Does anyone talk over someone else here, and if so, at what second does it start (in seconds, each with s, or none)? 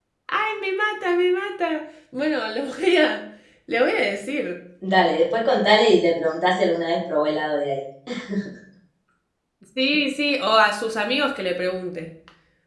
none